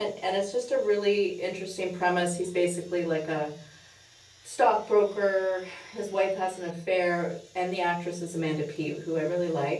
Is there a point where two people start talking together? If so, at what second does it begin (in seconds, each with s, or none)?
none